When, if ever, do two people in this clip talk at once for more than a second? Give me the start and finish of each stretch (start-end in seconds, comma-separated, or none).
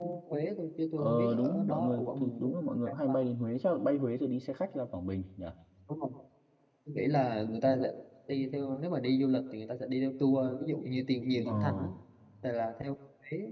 1.0-2.5